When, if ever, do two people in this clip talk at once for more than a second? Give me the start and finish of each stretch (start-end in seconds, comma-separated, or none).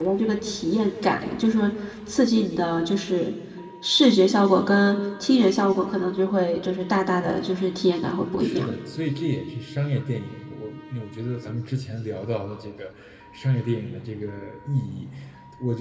none